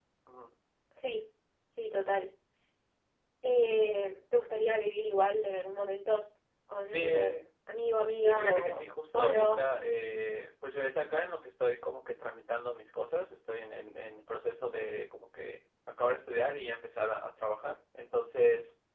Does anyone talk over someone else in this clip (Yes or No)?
Yes